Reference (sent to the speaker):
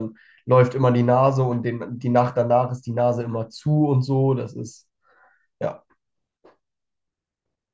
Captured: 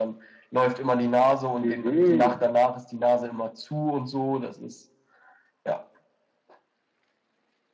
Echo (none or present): present